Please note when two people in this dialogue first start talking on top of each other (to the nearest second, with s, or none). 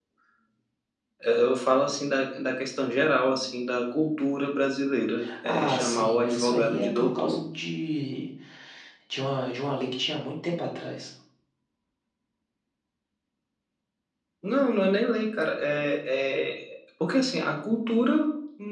5 s